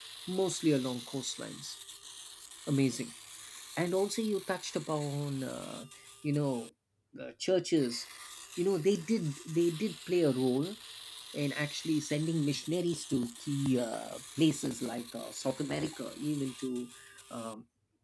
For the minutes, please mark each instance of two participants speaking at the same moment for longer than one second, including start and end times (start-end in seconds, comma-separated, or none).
none